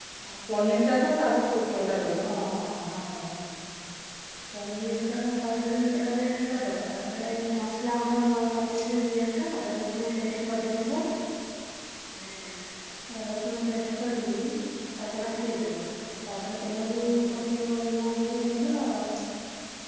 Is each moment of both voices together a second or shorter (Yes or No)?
Yes